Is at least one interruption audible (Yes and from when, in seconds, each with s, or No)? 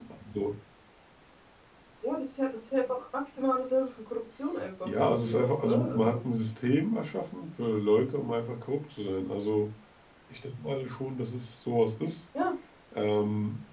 Yes, from 4.8 s